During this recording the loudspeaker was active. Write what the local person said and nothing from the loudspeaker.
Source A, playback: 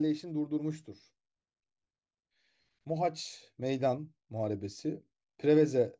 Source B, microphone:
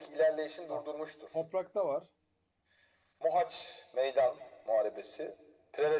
Ha. Toprakta var.

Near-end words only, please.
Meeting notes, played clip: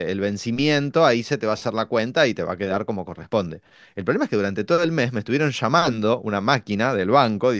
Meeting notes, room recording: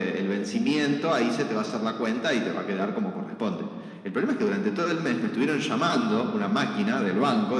none

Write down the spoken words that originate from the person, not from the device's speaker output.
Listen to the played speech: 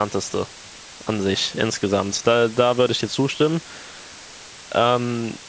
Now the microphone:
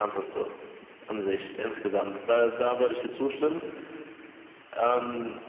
none

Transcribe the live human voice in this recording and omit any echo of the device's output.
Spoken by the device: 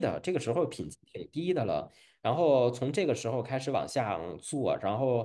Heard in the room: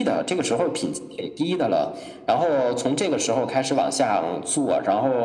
none

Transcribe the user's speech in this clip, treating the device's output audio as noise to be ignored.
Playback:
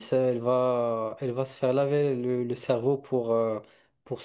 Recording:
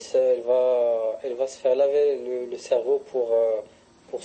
none

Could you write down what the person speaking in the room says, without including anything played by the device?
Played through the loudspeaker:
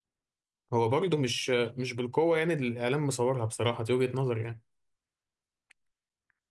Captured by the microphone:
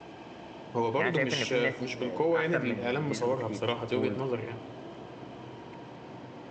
يعني شايف ان في ناس احسن من زيزو بكتير قول

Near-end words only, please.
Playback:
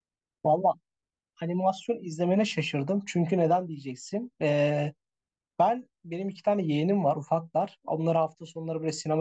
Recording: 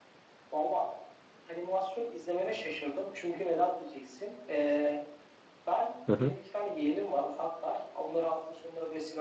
Hı hı.

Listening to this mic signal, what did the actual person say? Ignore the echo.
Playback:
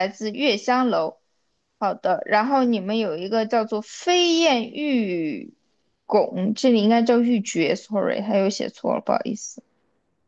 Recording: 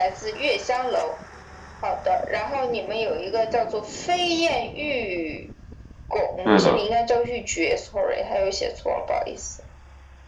对的。

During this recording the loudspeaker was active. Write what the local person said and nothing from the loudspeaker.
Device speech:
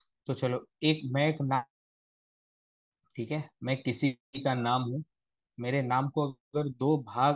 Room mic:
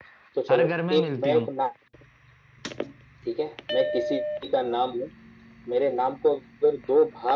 हर घर में मिलती हूँ

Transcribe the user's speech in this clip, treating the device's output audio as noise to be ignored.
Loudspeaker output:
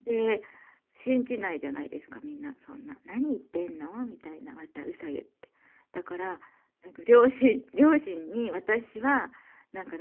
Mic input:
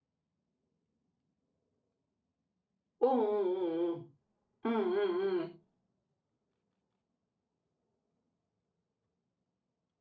うんうんうんうん。

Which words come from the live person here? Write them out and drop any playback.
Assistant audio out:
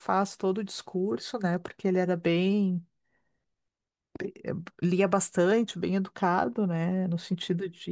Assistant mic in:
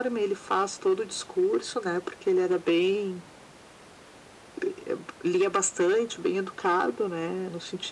none

